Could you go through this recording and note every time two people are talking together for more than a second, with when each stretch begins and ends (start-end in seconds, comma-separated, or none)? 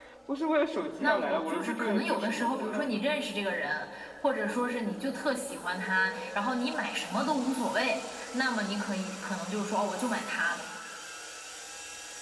1.0-3.0